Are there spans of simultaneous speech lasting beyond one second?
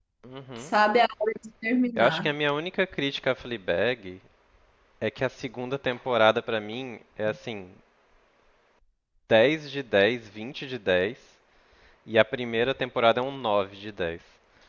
No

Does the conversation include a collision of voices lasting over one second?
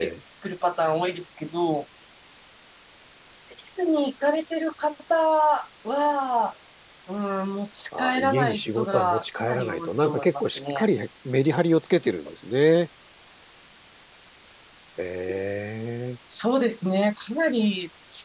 Yes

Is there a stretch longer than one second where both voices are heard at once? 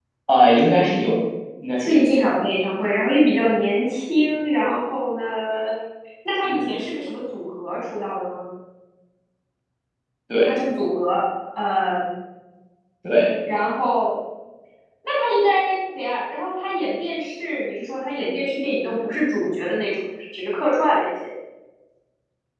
No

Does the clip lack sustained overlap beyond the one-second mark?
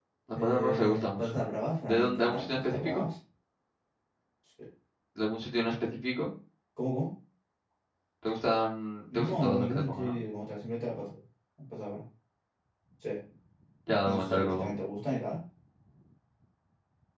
No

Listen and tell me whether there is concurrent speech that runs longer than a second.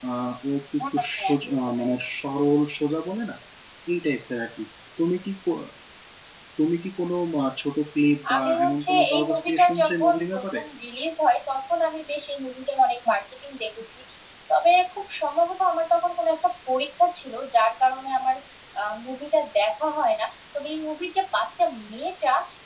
Yes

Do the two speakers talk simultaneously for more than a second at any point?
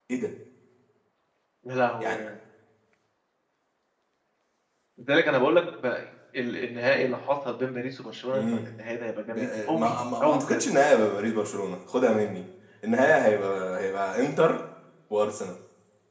Yes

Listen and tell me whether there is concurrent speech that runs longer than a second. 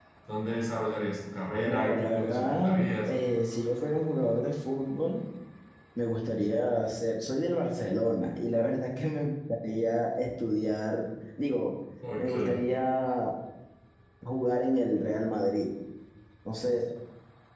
Yes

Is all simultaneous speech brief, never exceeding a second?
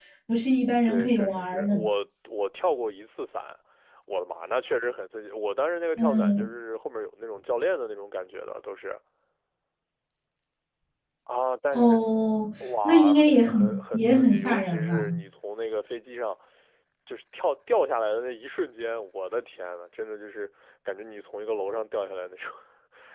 No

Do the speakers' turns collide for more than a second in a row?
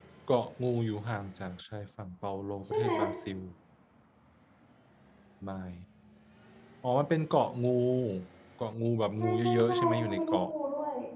Yes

